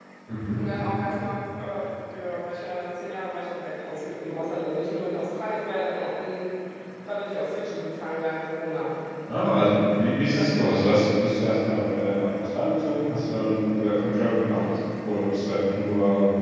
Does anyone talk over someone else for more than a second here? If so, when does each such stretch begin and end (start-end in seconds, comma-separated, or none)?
none